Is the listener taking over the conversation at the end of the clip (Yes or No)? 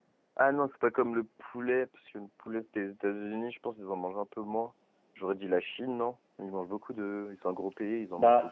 Yes